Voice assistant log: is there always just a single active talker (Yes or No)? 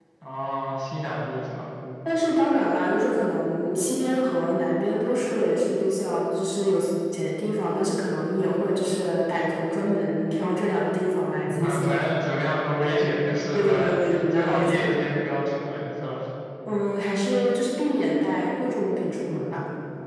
No